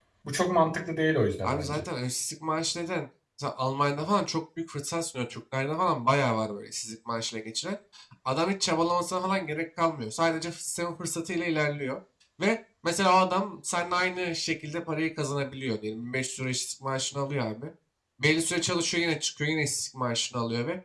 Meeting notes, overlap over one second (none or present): none